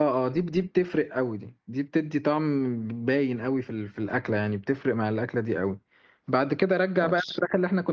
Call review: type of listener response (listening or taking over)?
listening